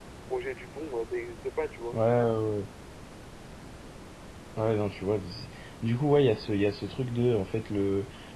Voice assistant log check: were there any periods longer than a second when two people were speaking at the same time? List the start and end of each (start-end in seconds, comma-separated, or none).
none